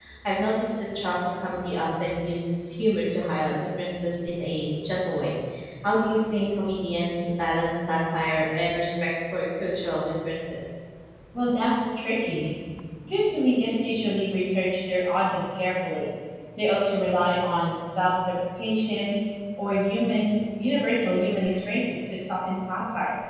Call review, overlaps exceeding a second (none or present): none